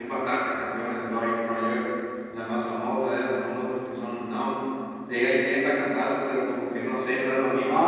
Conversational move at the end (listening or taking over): taking over